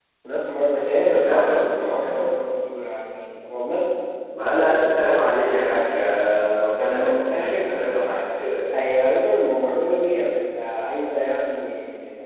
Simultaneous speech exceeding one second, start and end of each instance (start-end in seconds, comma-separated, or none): 1.1-2.4, 6.8-8.5